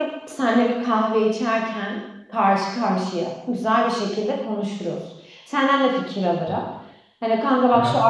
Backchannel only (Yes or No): Yes